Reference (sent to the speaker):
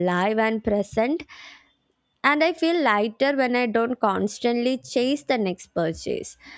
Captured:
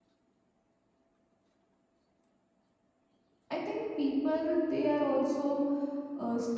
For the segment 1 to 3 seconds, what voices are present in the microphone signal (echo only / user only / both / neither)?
neither